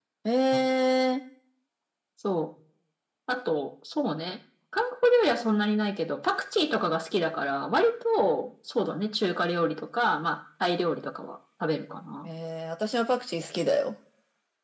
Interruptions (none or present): none